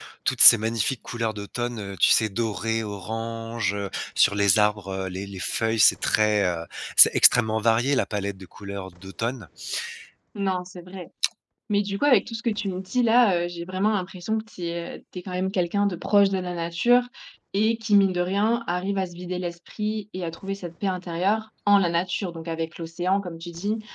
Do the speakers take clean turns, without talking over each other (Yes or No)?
Yes